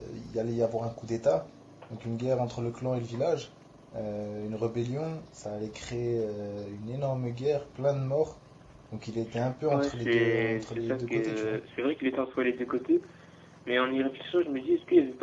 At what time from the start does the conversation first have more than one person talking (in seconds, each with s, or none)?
9.7 s